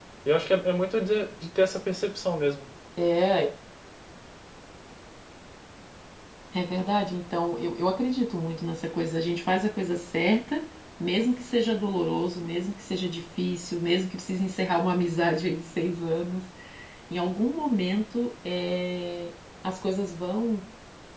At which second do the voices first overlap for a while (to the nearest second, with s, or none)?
none